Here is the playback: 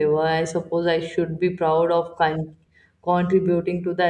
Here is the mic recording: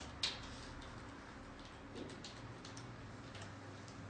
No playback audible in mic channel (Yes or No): Yes